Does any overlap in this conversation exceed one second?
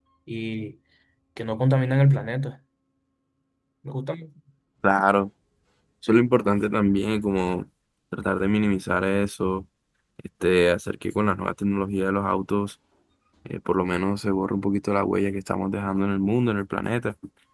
No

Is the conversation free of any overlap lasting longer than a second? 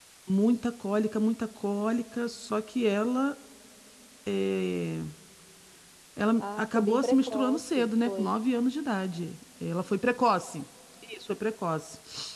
No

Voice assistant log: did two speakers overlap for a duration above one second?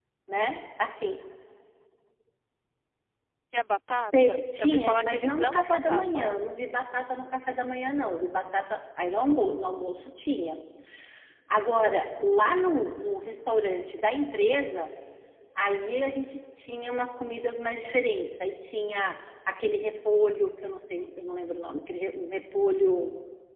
Yes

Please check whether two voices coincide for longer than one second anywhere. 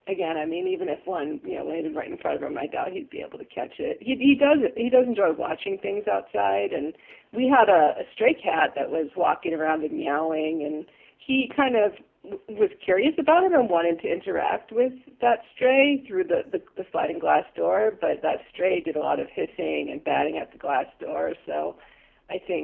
No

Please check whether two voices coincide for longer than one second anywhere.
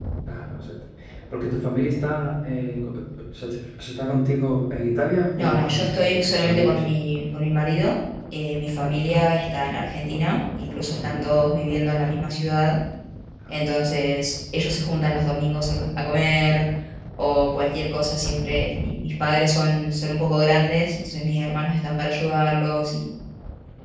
Yes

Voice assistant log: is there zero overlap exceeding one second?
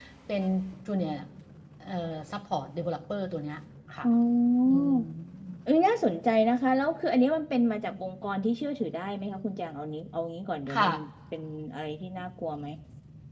Yes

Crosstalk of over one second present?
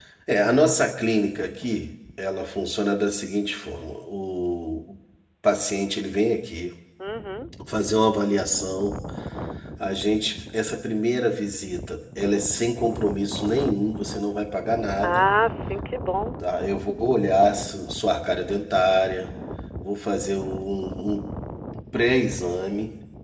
No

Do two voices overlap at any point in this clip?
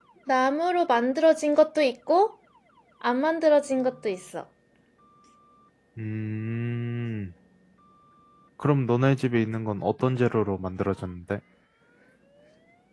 No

